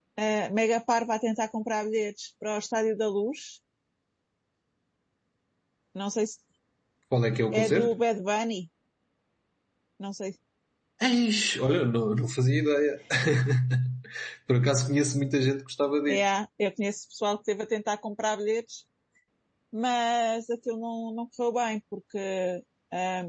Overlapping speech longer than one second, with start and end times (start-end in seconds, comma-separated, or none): none